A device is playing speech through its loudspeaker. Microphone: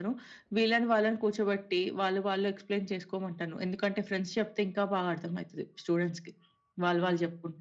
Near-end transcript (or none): none